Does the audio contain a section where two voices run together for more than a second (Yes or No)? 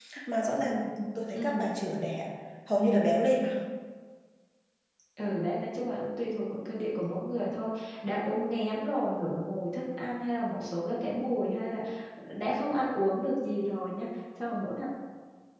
No